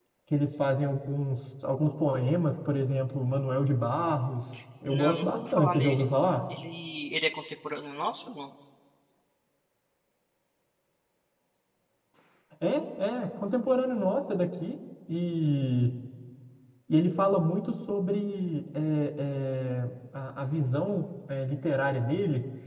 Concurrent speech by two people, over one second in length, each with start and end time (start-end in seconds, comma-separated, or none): 4.8-6.0